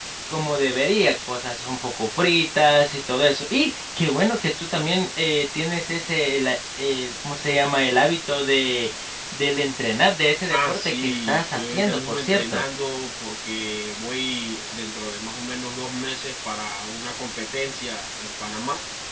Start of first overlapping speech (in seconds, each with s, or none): 10.5 s